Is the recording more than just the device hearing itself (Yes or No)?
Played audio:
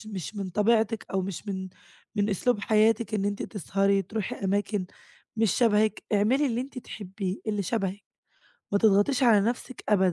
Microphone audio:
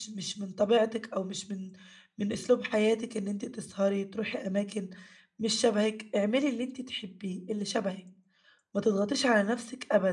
No